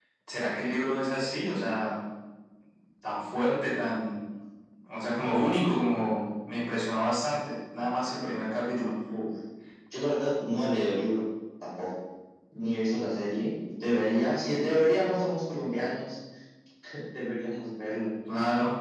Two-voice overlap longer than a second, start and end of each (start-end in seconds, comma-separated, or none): none